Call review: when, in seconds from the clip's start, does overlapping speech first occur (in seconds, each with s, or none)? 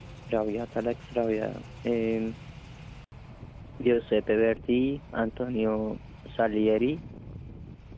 none